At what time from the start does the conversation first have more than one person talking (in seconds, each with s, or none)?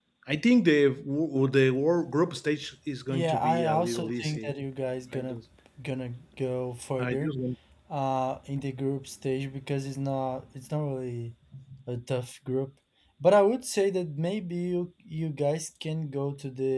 3.1 s